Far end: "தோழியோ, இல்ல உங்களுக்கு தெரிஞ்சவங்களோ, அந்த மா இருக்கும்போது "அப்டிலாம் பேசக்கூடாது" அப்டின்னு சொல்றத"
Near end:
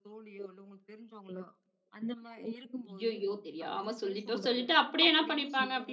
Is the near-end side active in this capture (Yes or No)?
Yes